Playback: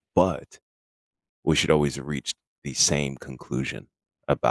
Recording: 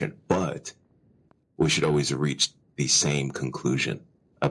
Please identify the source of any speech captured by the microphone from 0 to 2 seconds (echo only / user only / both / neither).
echo only